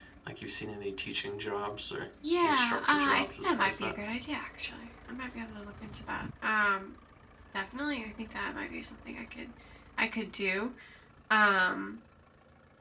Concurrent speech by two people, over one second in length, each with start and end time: 2.4-3.9

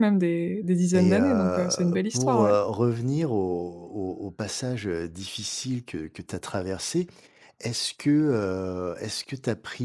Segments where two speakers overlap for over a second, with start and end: 0.9-2.5

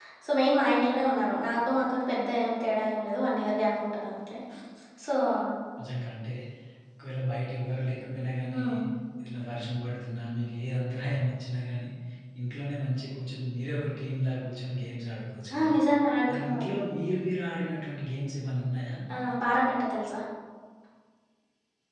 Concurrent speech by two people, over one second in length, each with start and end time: none

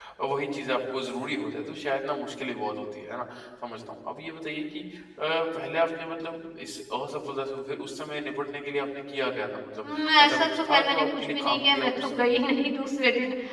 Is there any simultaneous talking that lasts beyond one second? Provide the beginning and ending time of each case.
9.8-12.3

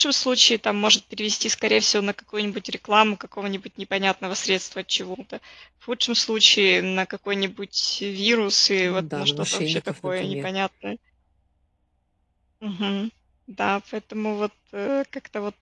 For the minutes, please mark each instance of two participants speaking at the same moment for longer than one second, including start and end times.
8.8-10.5

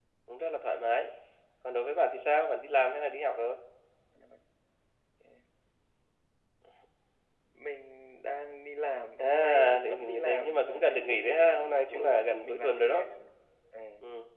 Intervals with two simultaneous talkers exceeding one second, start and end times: 9.2-13.0

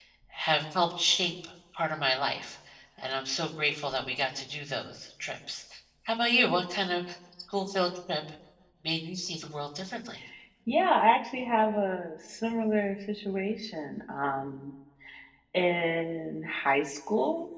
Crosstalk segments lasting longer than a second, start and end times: none

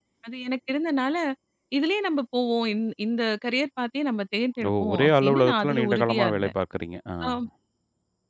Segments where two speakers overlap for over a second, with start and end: 4.7-6.5

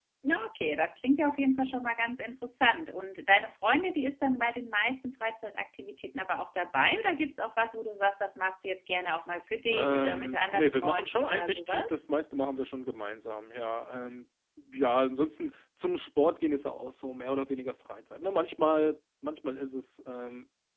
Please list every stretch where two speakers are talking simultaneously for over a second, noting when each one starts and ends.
9.7-11.9

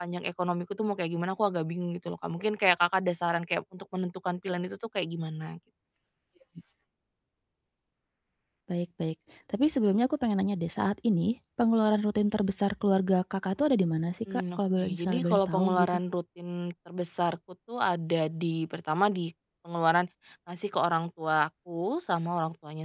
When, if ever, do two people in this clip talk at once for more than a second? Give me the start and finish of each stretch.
14.3-15.9

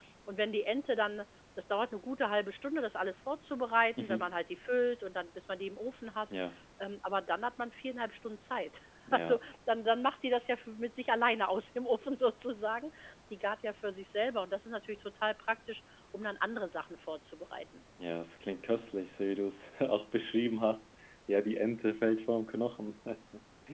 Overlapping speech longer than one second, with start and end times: none

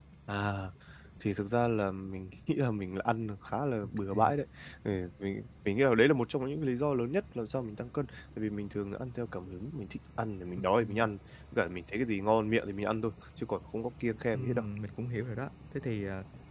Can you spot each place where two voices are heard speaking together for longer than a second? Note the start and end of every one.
none

